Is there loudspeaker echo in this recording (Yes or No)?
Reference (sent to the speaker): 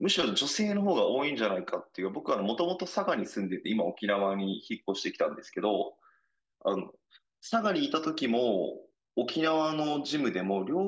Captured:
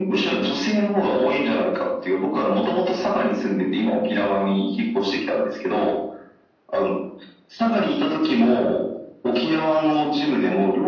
Yes